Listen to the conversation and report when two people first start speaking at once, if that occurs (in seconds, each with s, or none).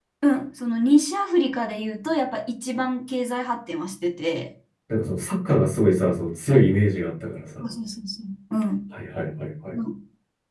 none